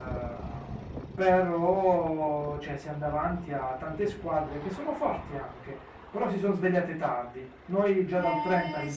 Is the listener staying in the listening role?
No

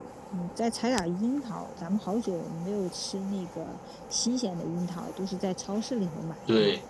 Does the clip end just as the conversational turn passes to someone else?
Yes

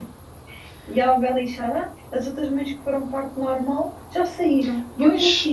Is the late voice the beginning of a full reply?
Yes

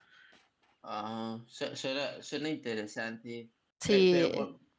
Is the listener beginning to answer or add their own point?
No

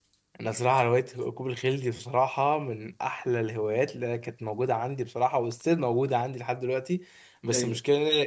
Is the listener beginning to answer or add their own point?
No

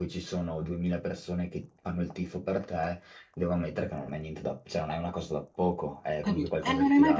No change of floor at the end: No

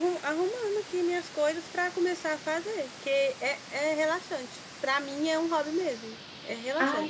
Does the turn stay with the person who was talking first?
No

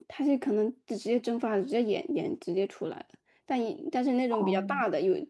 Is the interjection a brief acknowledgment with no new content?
Yes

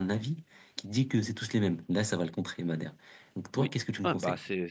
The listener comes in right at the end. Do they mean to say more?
Yes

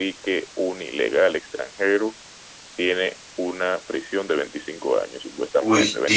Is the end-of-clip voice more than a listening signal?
Yes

